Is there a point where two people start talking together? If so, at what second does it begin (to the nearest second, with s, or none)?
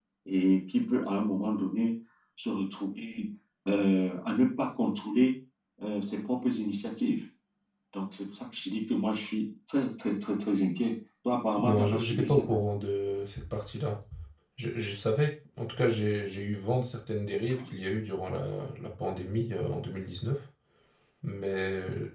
12 s